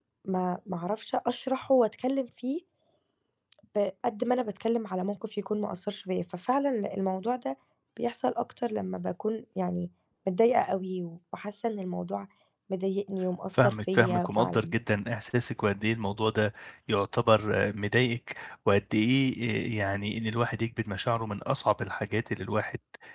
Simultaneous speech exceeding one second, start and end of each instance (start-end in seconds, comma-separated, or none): 13.5-14.7